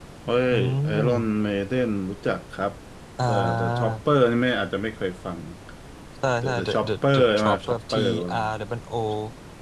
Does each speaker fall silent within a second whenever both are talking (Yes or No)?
No